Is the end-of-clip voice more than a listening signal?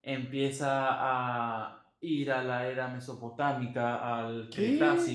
No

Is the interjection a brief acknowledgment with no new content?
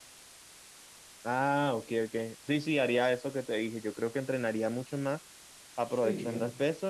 Yes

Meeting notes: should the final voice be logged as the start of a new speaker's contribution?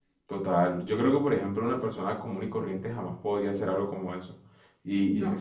No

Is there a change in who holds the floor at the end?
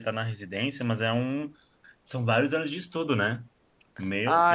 Yes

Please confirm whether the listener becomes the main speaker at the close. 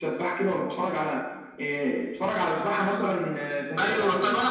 Yes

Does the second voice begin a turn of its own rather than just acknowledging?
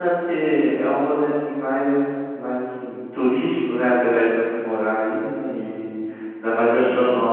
No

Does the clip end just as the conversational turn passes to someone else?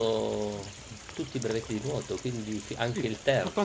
Yes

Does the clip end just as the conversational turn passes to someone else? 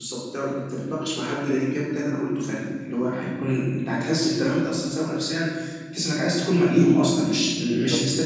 No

